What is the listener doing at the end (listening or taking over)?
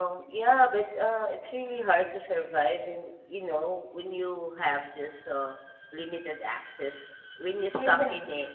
listening